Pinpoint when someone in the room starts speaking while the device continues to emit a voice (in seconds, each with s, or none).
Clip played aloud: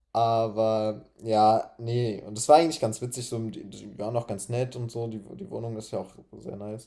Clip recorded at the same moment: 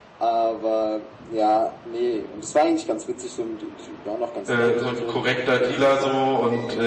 4.5 s